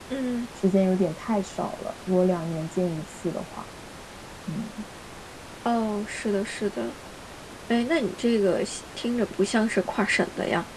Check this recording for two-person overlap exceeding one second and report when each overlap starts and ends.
none

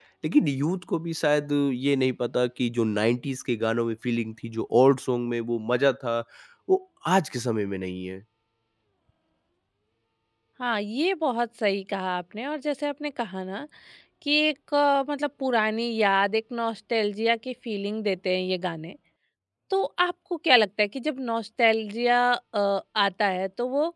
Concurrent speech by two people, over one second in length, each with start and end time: none

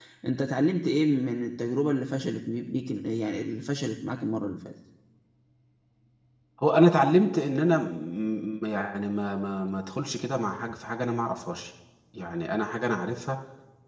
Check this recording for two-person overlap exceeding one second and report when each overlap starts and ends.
none

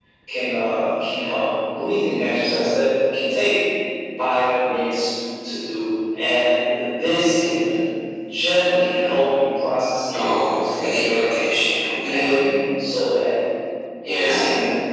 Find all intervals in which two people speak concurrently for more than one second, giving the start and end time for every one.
10.1-11.3

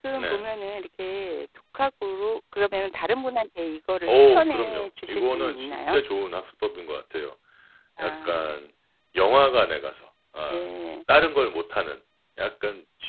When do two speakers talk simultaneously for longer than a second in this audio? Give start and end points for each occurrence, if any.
4.1-6.0

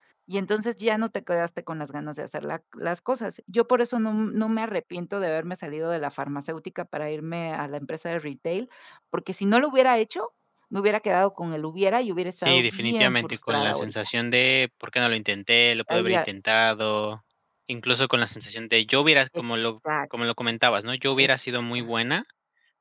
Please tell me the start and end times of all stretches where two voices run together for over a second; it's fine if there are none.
12.4-13.9

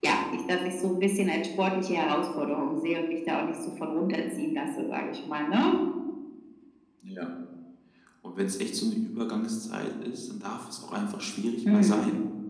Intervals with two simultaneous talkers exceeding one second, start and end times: none

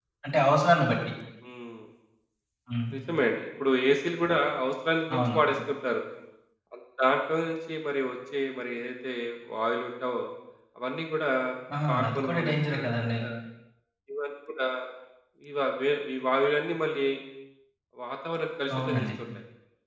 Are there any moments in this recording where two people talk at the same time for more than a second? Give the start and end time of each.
11.9-13.2

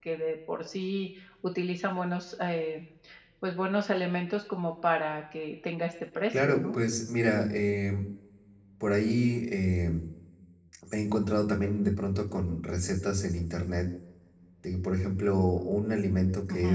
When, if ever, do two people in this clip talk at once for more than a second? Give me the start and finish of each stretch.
none

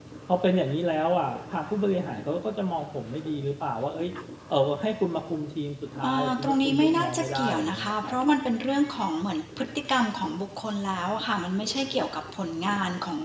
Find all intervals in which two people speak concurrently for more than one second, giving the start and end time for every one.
6.0-8.1

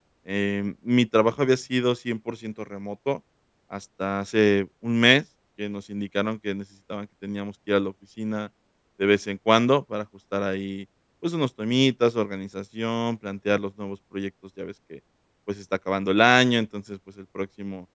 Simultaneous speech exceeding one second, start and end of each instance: none

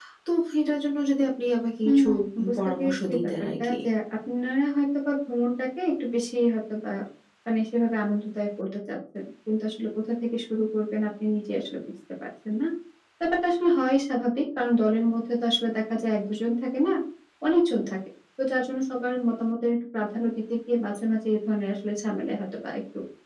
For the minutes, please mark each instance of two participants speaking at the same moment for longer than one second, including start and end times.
2.5-3.8

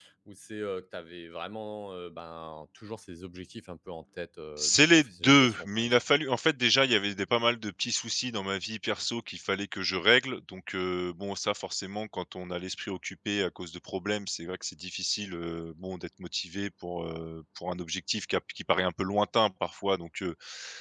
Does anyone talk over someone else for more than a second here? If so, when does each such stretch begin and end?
4.6-6.0

